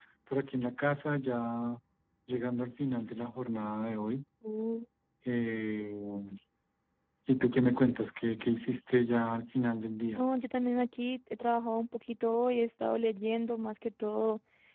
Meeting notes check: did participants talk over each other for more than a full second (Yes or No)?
No